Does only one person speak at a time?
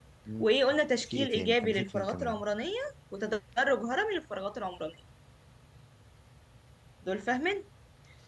No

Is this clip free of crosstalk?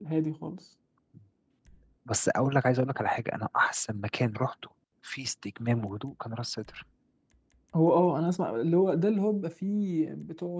Yes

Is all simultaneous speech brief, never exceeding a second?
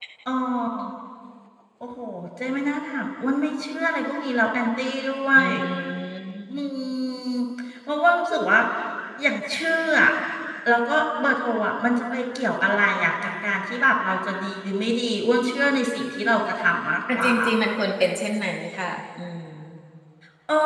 Yes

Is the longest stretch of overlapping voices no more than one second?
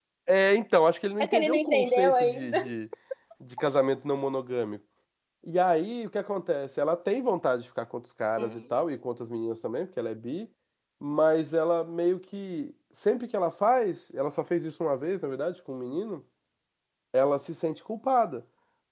No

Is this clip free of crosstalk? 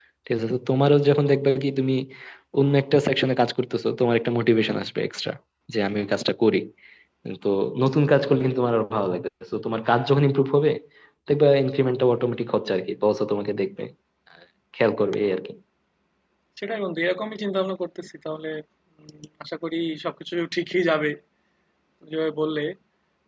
Yes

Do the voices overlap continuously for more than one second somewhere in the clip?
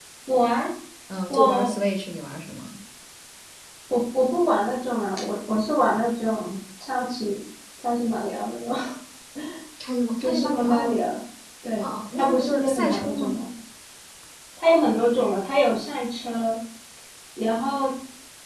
Yes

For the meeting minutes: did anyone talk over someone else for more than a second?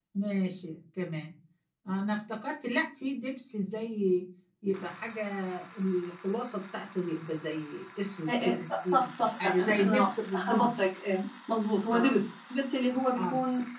Yes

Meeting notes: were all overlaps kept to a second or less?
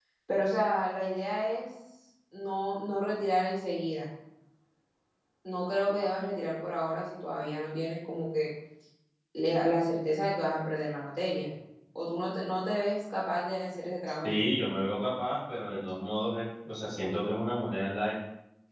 Yes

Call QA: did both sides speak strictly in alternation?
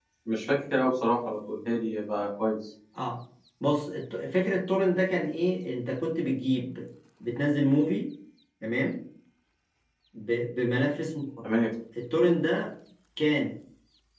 Yes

